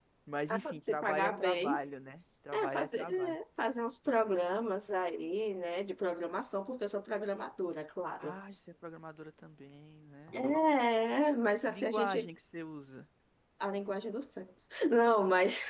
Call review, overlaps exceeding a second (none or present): present